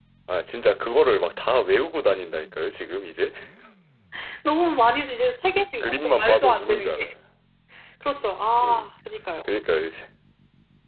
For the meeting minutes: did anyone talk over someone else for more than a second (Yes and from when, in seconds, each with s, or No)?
Yes, from 5.5 s